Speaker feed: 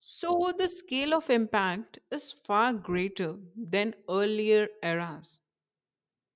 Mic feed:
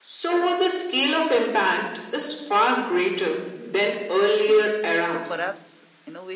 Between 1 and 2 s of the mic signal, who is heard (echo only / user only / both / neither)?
echo only